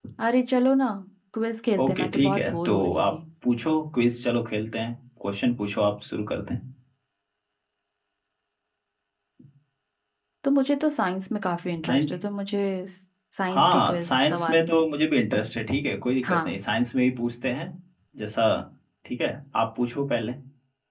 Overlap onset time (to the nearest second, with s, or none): 2 s